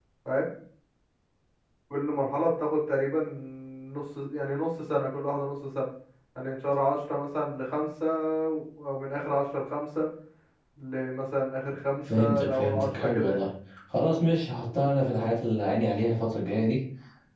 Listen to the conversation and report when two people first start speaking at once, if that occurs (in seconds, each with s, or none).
12.1 s